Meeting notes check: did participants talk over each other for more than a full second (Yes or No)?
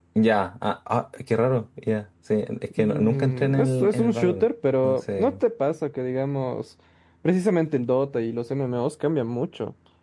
Yes